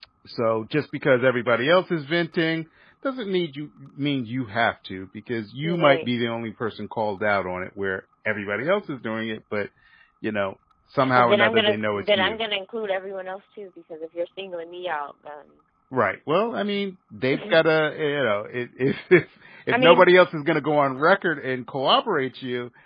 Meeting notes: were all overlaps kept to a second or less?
No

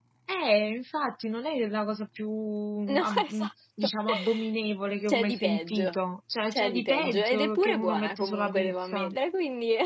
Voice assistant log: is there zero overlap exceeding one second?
No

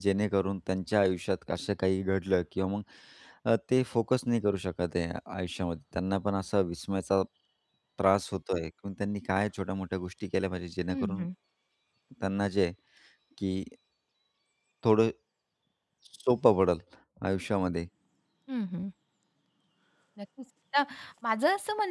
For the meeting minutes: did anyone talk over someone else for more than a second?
No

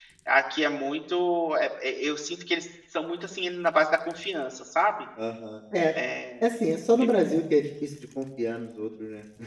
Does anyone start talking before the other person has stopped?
No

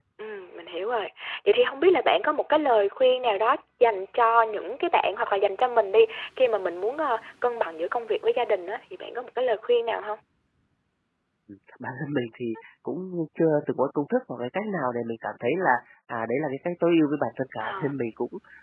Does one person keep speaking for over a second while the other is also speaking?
No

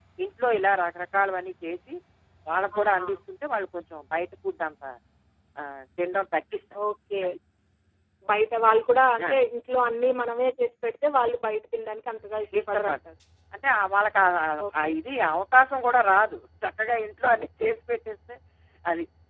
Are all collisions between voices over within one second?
Yes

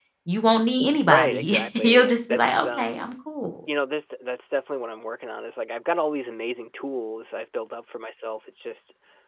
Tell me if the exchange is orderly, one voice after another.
No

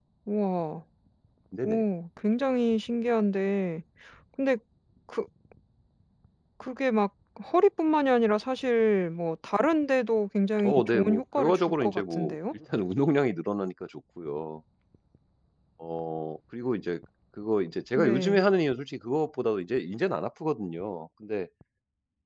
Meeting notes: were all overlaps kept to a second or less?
No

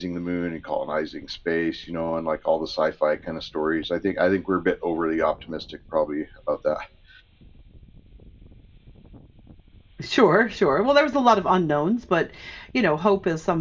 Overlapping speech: No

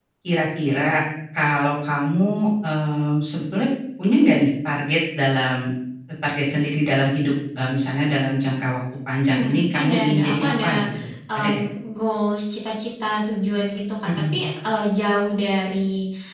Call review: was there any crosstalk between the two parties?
Yes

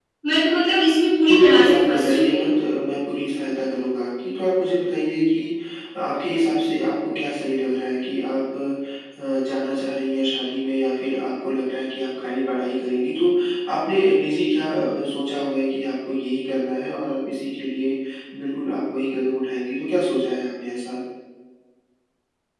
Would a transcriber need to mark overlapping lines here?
Yes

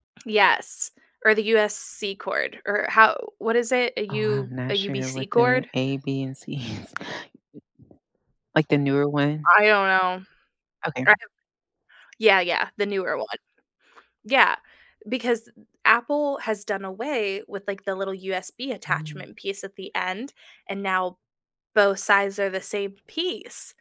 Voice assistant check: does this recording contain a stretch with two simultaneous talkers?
Yes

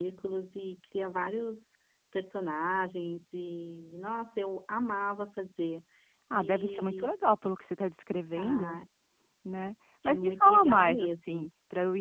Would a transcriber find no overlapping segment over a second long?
No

